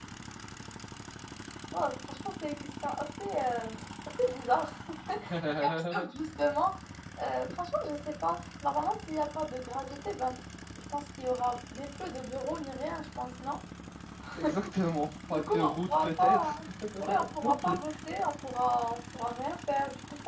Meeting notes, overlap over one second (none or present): present